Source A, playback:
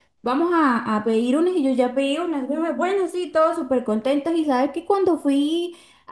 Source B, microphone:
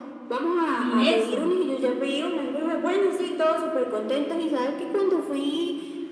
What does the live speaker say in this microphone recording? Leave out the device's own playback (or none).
sin eso.